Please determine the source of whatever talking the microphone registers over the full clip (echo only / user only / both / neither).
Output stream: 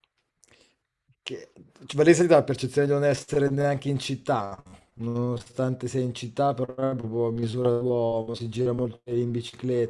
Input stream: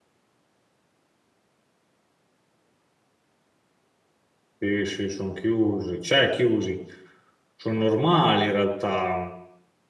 user only